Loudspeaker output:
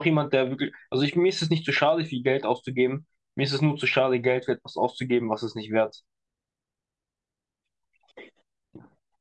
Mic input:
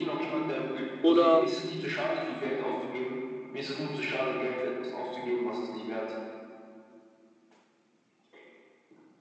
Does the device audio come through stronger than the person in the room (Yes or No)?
No